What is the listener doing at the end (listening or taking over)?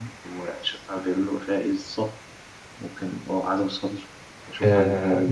taking over